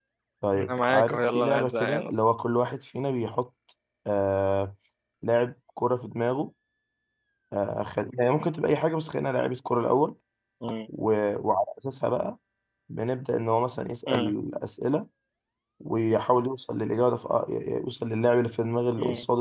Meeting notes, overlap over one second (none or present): present